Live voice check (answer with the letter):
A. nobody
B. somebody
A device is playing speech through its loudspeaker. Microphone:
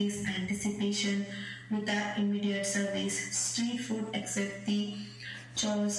A